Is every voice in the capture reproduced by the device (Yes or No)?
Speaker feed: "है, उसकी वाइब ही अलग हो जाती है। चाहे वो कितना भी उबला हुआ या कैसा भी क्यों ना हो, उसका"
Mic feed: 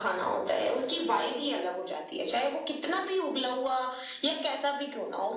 Yes